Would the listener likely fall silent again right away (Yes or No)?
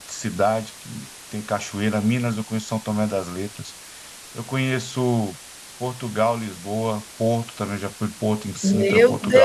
No